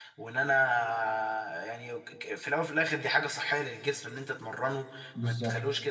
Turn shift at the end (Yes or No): No